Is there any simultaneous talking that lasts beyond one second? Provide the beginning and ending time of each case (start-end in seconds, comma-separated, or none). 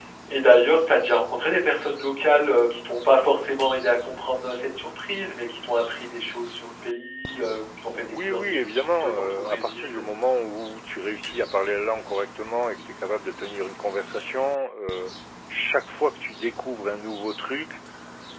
8.0-10.0